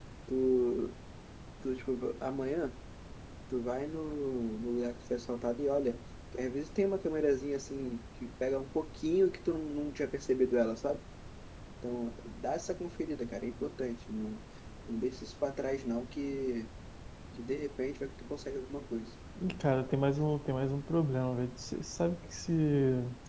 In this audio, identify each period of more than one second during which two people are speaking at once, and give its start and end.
none

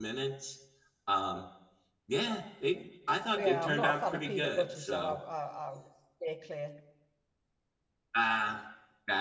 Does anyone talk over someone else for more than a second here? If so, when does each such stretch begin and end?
3.4-5.2

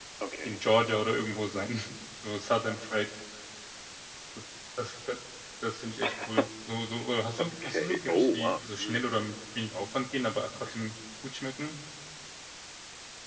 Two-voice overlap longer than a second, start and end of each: 7.4-9.0

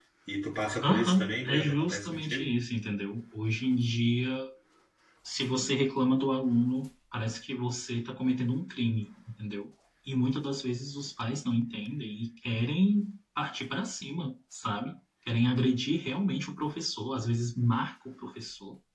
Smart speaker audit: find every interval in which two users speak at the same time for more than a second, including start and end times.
0.8-2.6

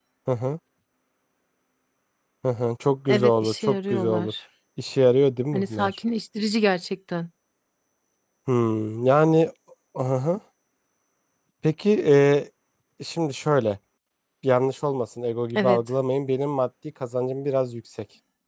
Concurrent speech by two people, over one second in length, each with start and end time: 3.1-4.3

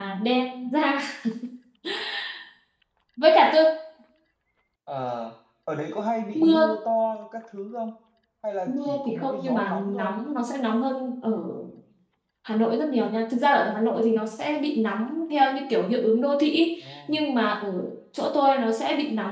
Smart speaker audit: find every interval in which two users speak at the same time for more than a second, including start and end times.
8.7-10.1

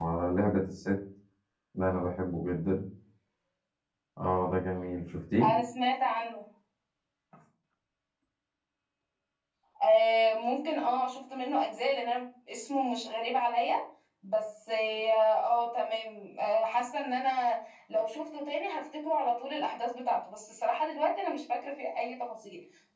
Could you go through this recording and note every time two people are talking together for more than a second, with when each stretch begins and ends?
none

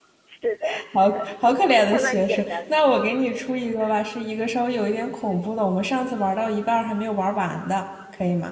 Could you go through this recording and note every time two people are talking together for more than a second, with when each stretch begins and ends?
0.9-2.8

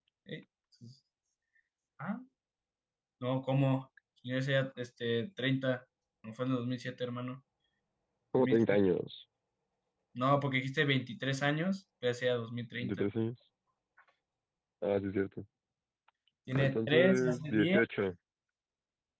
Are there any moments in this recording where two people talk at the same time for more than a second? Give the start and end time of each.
16.5-17.8

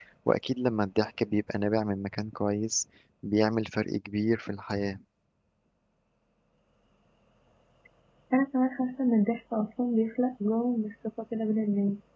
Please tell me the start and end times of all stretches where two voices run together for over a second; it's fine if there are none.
none

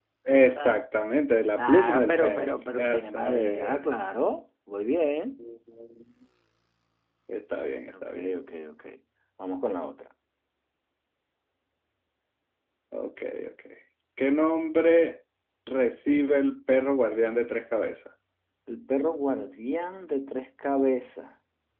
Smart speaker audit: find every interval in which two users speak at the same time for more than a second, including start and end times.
1.6-3.8

